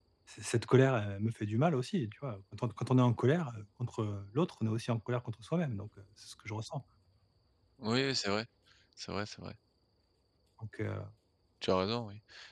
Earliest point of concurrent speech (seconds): none

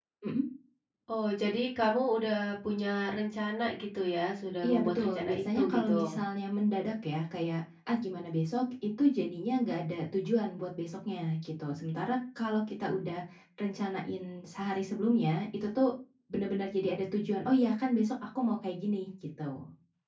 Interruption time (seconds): 4.6 s

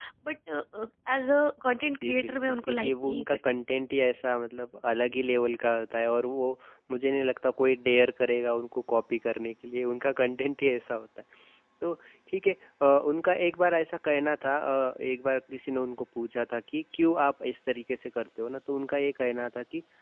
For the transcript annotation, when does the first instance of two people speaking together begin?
2.0 s

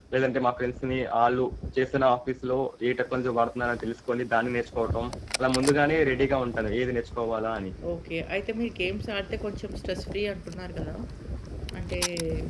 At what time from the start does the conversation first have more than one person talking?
none

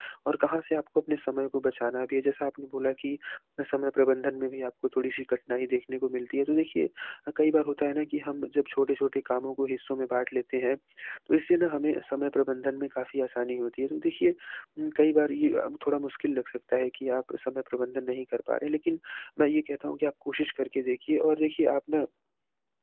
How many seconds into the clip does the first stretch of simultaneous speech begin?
none

